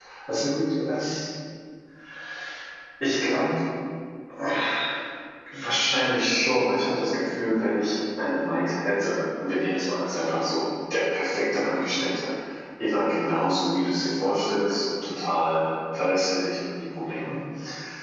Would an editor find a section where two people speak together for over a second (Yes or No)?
No